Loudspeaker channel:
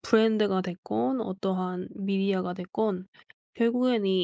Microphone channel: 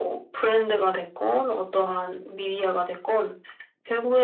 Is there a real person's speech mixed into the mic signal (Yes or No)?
No